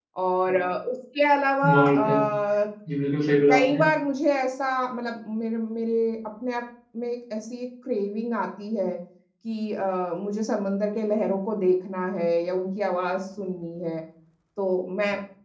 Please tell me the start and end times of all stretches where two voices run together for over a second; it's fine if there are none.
none

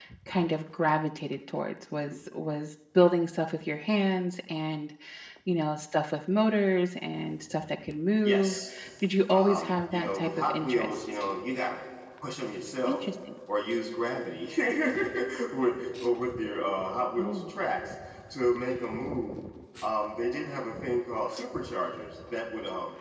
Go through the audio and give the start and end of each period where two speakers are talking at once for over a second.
9.3-11.0

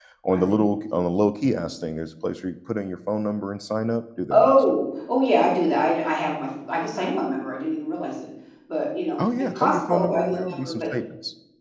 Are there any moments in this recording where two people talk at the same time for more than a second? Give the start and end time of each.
9.4-10.8

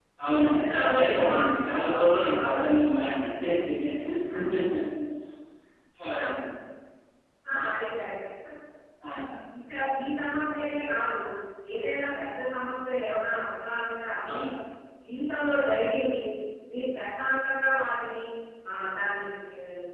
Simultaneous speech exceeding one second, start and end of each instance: 0.5-2.6

